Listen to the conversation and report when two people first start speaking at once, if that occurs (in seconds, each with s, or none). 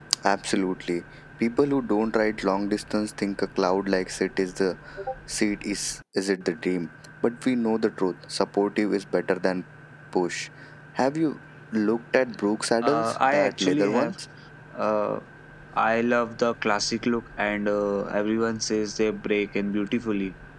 12.8 s